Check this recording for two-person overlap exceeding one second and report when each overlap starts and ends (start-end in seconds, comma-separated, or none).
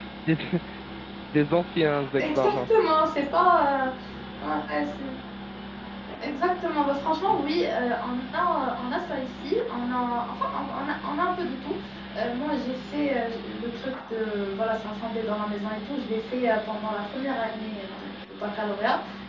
none